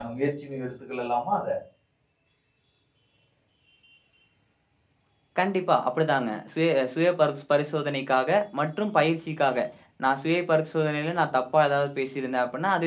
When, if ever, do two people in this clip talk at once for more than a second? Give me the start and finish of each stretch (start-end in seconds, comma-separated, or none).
none